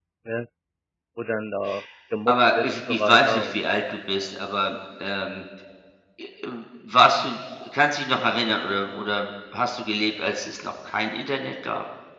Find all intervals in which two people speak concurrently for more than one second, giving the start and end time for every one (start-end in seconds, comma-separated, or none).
2.3-3.6